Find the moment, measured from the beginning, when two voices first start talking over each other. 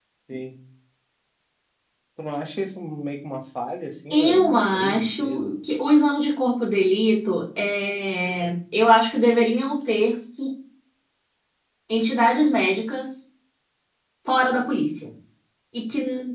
4.1 s

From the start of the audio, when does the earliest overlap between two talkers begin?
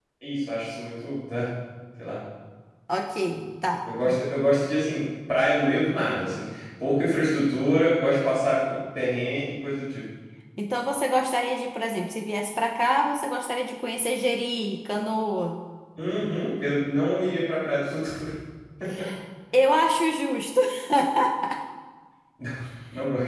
none

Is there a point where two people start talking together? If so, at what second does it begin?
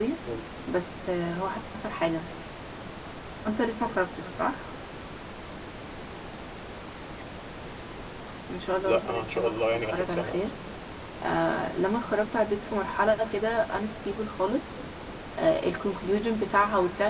8.8 s

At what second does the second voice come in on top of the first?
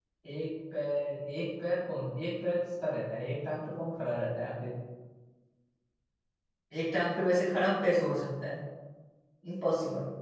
none

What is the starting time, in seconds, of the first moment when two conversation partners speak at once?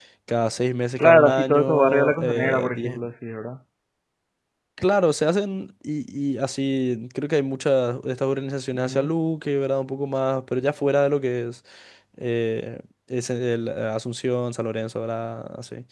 1.0 s

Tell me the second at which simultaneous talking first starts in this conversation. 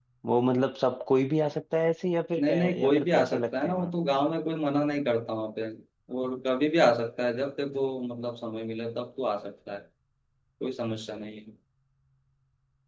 2.4 s

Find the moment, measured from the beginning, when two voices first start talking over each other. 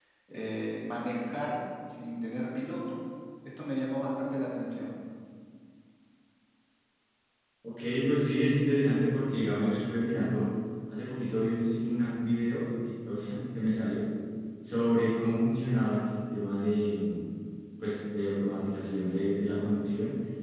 none

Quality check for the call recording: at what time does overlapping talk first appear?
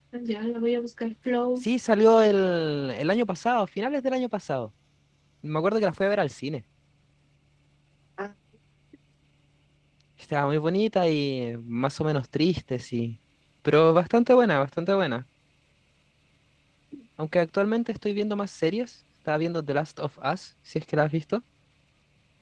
none

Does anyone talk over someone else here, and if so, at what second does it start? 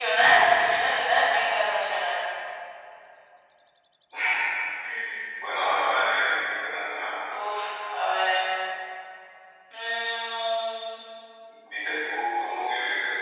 none

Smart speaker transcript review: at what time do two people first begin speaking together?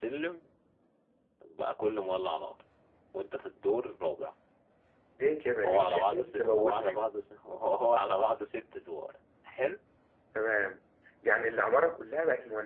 5.6 s

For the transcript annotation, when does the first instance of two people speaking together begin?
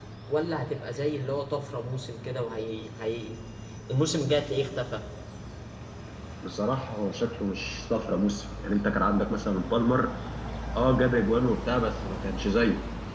none

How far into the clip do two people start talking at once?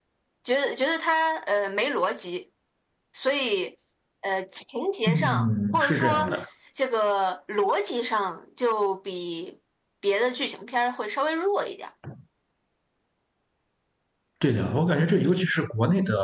5.1 s

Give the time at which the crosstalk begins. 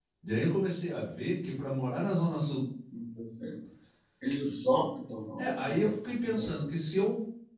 5.4 s

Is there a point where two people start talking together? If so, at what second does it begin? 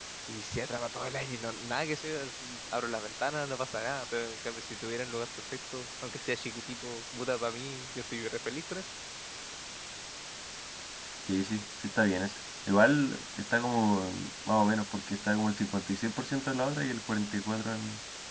none

